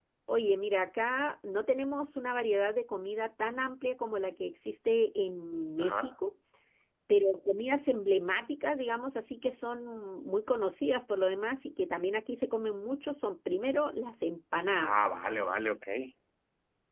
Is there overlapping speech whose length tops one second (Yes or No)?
No